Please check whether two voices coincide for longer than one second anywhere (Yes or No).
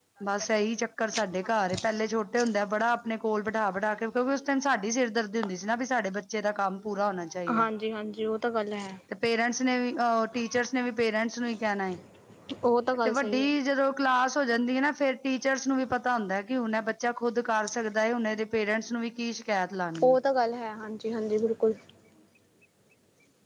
No